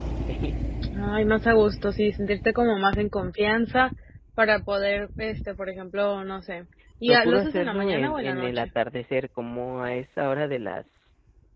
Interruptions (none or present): present